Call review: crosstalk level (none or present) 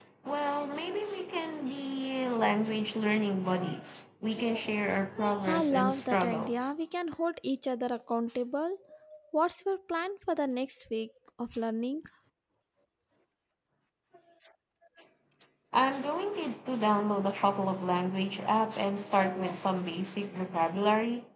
present